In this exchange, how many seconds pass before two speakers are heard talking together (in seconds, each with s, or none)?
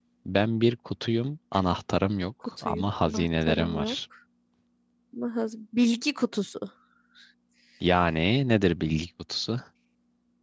2.6 s